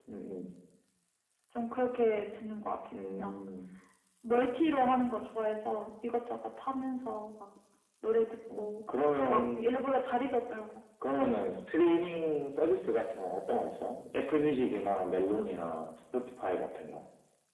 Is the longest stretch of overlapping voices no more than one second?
Yes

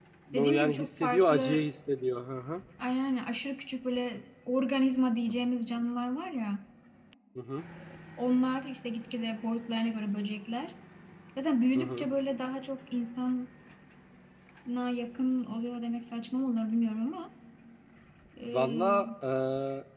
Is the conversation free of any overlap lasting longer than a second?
No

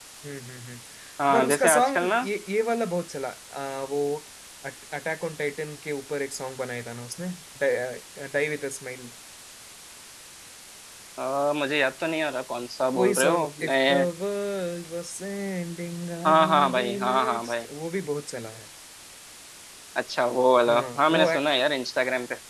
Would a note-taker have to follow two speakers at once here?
Yes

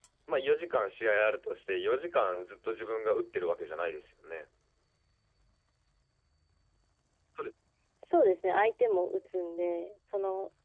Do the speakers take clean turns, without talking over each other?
Yes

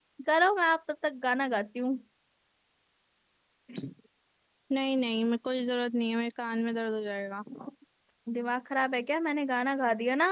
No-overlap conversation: Yes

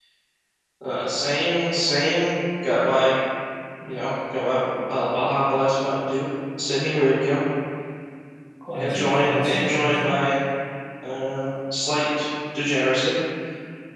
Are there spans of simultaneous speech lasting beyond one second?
Yes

